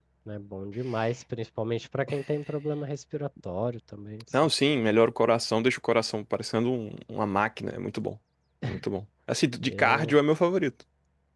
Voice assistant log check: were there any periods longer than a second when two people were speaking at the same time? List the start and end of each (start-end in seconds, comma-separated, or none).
none